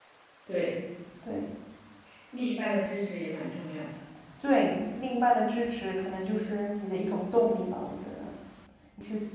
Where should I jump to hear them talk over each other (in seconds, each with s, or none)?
none